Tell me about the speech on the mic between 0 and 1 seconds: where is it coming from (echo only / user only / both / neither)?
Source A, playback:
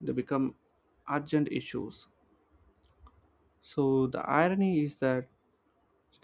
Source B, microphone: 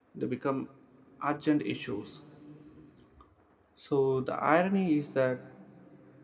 echo only